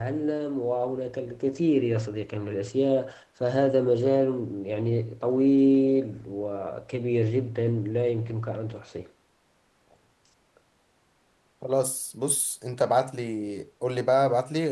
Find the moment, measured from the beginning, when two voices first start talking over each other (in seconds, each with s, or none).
none